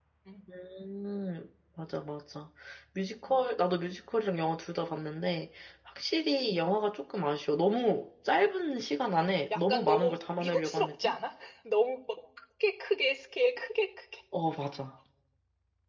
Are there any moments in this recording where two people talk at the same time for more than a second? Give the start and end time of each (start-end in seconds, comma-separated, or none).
9.6-11.1